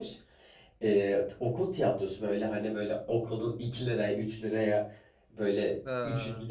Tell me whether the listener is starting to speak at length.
No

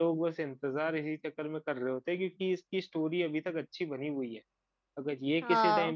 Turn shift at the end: No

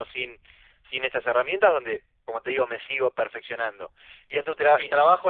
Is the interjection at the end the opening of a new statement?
No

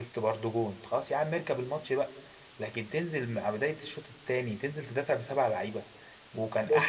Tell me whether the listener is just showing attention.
Yes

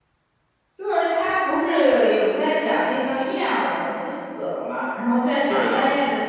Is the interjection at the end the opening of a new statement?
No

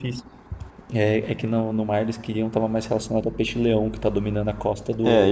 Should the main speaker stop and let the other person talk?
Yes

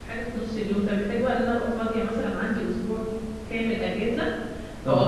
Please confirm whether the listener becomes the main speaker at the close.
Yes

